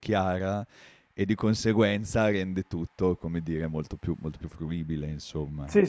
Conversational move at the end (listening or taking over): taking over